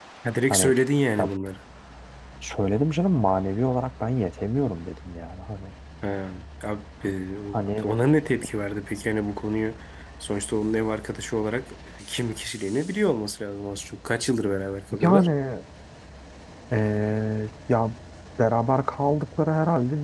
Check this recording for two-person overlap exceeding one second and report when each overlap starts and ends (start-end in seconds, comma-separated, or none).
none